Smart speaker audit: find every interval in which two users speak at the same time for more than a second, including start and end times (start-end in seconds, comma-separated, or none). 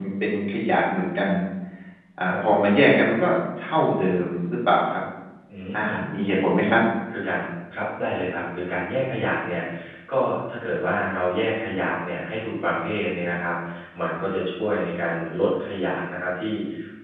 none